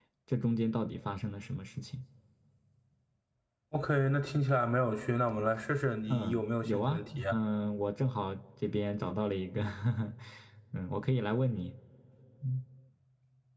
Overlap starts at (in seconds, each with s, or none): 6.1 s